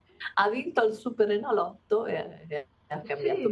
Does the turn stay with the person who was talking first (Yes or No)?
No